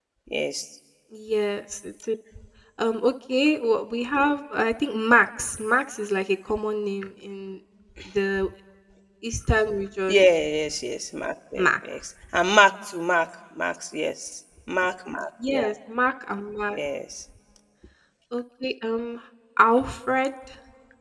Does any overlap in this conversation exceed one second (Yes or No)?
No